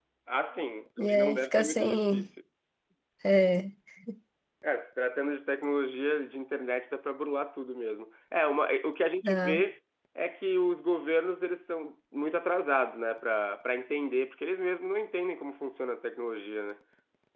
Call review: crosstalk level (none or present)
present